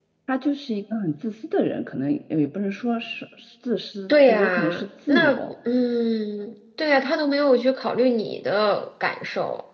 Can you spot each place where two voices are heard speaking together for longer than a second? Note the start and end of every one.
4.1-5.4

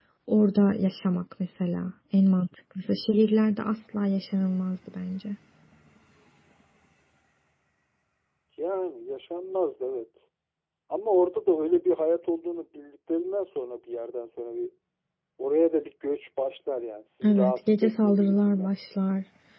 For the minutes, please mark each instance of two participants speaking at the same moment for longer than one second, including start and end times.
17.2-18.7

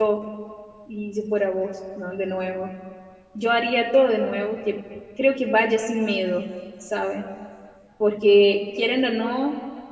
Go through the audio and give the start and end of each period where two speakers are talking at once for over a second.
none

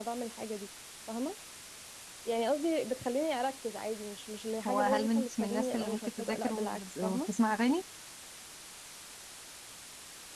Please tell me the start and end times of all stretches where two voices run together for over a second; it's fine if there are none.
4.7-7.3

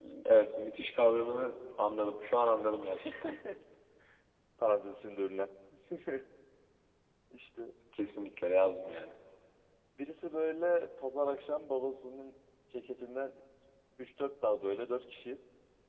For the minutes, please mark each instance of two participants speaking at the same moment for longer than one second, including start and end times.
none

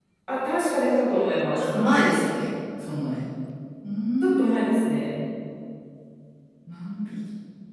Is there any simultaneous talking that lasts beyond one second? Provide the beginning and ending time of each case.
none

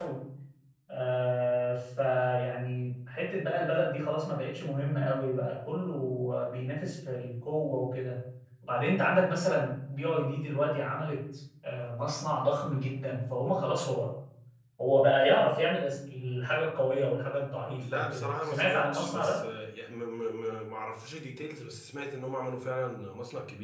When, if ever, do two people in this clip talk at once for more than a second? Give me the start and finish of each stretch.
17.8-19.4

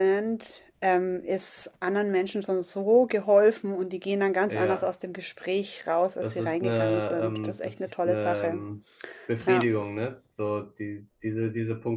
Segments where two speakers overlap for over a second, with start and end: 6.2-8.6

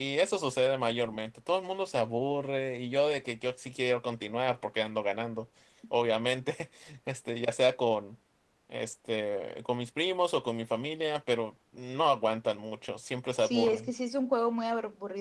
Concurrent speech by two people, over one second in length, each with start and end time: none

